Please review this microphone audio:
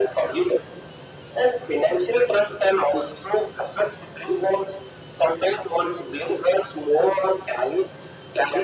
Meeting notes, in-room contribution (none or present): none